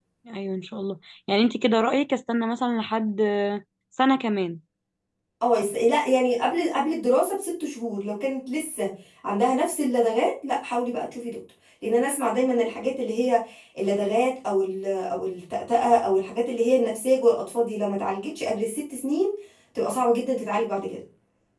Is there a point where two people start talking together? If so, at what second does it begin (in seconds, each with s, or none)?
none